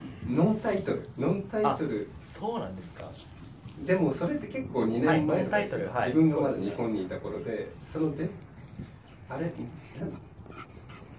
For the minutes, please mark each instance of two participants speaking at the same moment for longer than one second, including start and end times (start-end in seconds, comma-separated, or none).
5.0-6.8